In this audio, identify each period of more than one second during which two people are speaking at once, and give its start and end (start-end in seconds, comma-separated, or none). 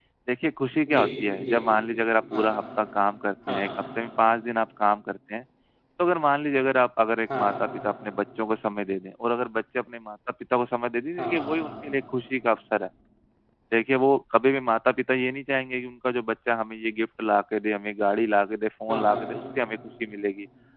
none